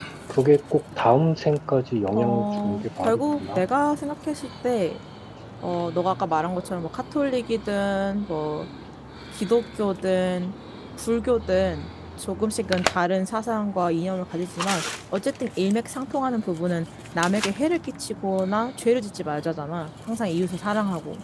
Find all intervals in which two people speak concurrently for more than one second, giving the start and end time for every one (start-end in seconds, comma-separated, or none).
2.1-3.6